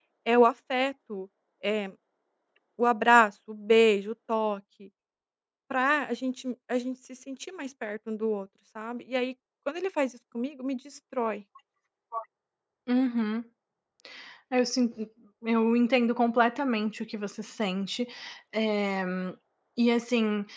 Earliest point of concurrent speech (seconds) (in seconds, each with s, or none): none